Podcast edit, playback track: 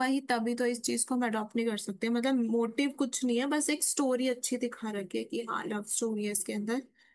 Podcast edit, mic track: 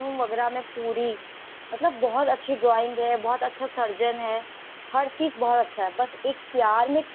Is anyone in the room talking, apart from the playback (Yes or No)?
Yes